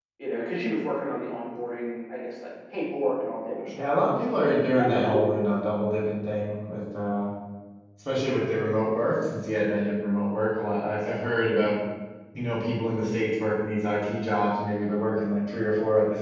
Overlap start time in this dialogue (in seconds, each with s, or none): 3.6 s